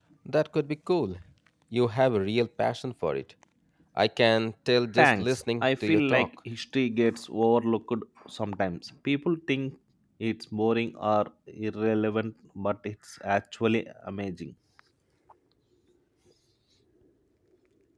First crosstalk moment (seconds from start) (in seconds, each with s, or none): 5.0 s